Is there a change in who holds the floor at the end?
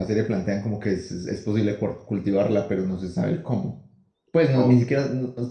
No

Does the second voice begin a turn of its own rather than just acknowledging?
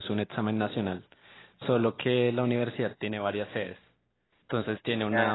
No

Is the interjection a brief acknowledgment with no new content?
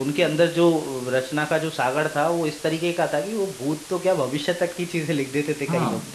No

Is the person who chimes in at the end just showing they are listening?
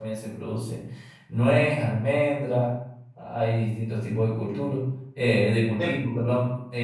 Yes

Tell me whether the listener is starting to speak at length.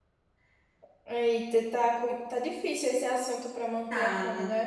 Yes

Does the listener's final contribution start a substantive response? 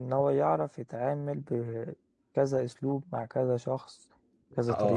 Yes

